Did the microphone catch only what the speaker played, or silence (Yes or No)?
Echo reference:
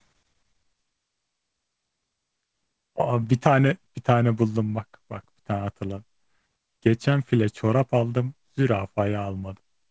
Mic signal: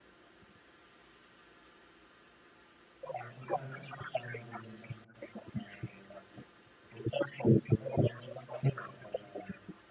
Yes